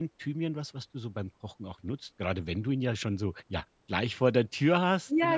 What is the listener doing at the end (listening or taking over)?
taking over